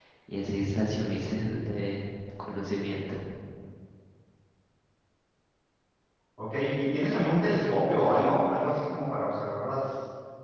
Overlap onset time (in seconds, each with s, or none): none